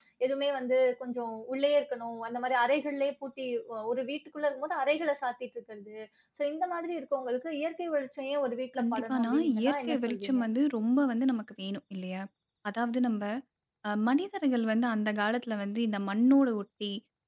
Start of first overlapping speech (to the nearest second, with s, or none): 9 s